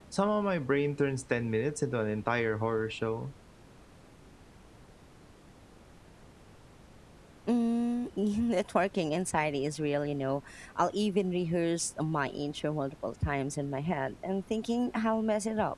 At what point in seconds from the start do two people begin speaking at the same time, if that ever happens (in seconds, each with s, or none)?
none